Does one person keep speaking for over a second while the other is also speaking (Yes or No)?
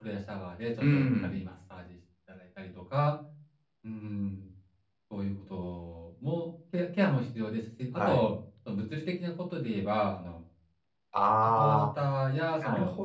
No